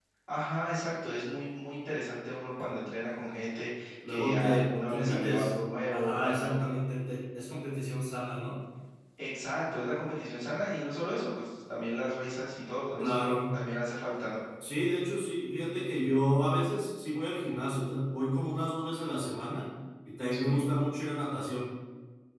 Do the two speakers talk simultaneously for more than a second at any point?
Yes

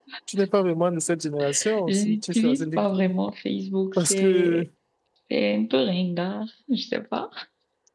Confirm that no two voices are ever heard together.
No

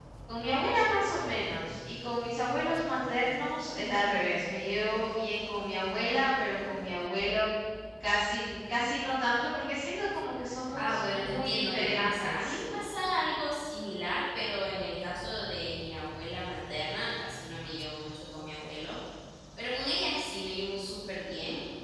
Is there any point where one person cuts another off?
Yes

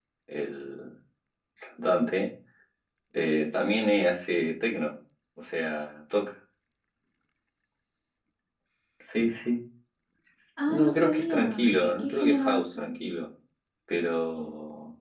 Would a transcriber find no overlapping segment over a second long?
No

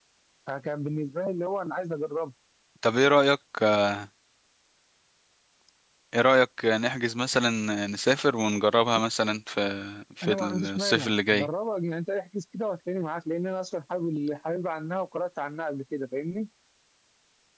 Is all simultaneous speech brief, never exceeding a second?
No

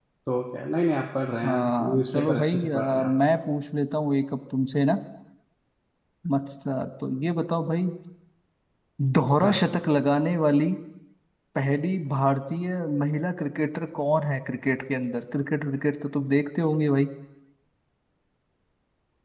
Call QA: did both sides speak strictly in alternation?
No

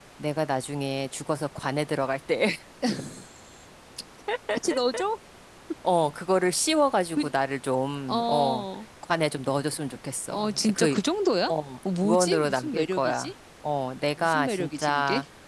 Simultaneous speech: Yes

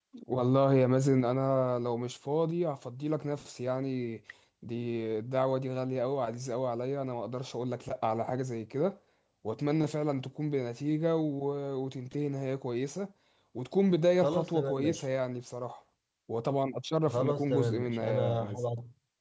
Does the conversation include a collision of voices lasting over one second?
Yes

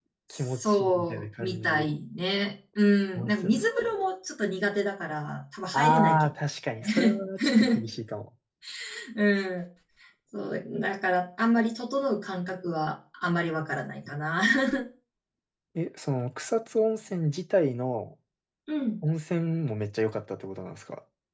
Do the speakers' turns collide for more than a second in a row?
Yes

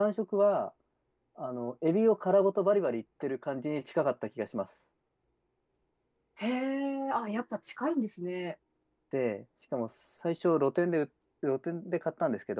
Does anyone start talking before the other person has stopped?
No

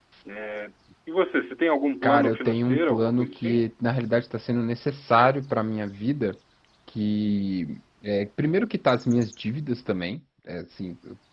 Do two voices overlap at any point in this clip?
Yes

